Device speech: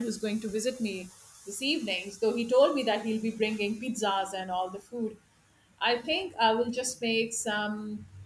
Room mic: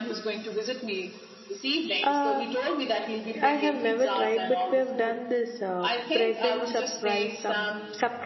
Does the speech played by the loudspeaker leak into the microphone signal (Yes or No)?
Yes